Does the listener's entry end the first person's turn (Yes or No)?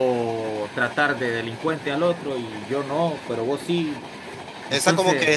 Yes